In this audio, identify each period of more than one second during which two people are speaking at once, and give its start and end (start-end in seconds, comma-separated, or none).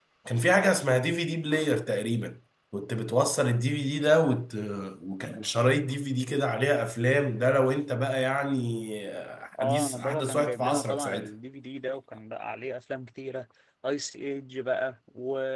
9.6-11.3